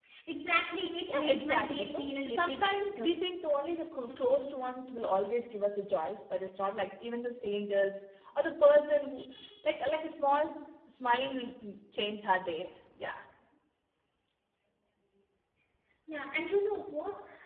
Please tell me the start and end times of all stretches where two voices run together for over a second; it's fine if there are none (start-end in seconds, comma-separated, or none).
1.1-3.2